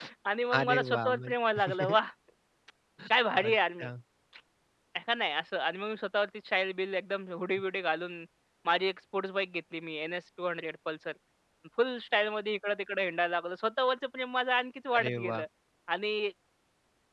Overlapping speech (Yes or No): Yes